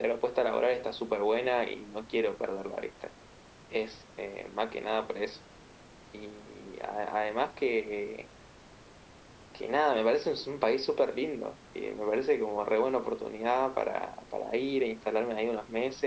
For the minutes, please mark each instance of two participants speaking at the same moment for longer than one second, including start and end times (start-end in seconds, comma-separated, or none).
none